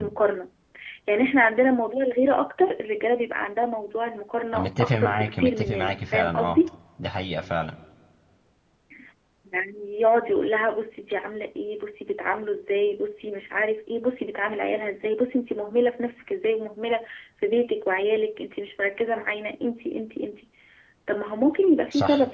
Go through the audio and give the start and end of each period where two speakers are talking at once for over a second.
4.5-6.6

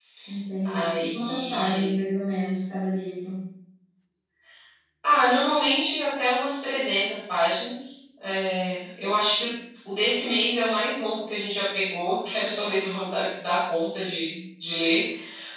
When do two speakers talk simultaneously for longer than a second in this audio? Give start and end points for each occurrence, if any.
0.7-2.0

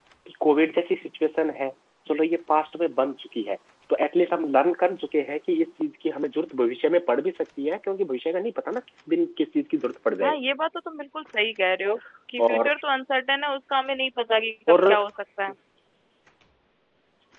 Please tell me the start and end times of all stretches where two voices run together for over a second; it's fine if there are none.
none

